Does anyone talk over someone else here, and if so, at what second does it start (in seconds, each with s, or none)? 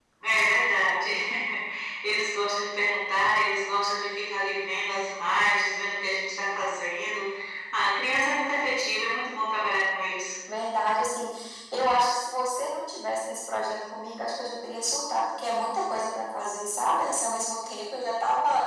none